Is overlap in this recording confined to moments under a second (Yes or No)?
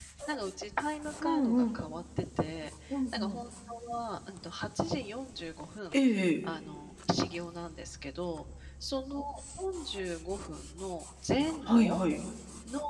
Yes